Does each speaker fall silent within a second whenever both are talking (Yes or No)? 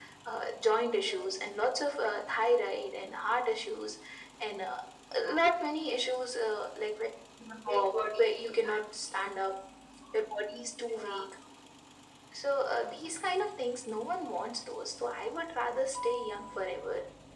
No